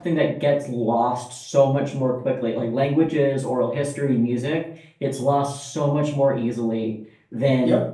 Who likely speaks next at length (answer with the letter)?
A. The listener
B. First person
B